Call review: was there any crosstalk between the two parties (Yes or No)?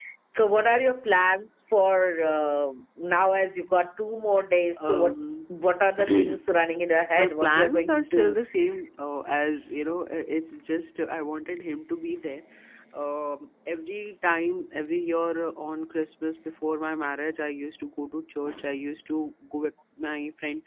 Yes